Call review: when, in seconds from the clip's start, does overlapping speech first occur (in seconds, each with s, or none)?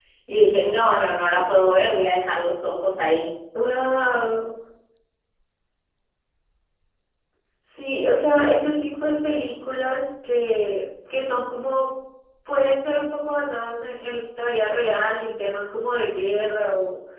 none